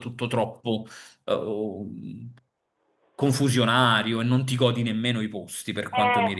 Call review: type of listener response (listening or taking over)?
taking over